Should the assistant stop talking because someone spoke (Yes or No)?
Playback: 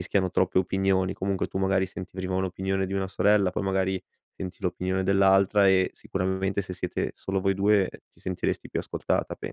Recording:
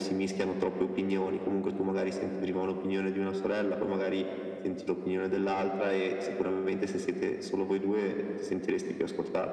No